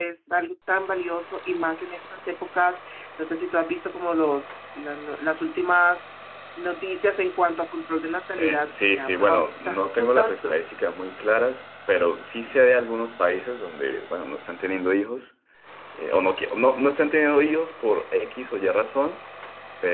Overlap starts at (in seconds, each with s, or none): 8.4 s